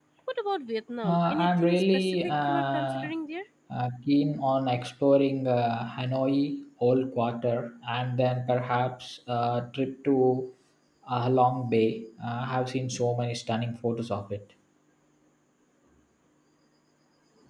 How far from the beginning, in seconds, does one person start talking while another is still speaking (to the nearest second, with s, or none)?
1 s